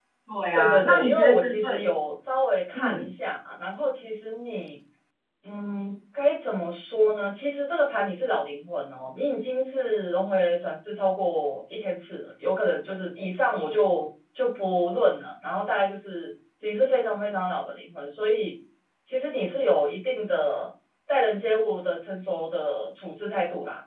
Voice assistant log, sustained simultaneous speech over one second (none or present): present